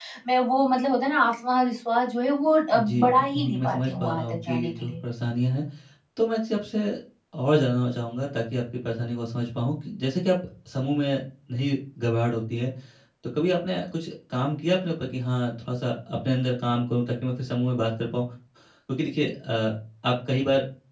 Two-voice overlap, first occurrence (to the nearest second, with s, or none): 3 s